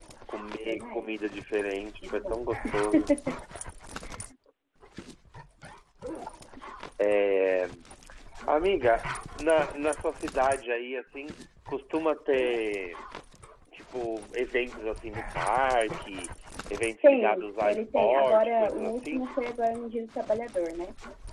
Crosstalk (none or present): present